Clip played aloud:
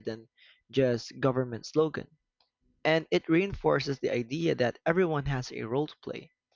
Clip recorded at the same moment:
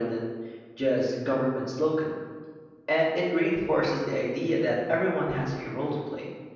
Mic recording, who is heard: echo only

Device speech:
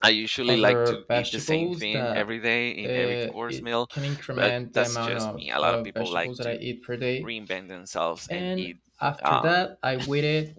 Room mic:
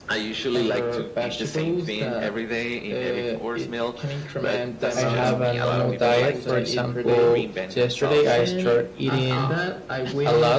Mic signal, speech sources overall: both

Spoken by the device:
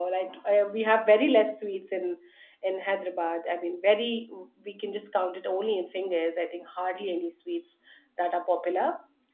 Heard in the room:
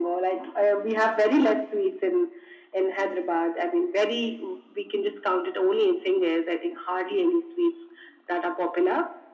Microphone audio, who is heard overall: echo only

